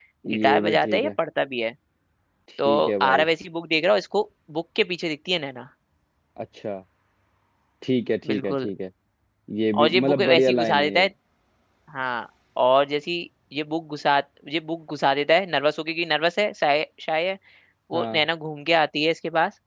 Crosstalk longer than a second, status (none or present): present